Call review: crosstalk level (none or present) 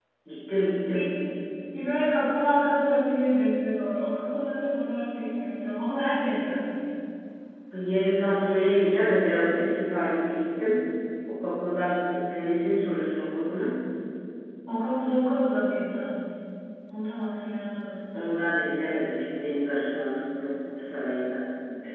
none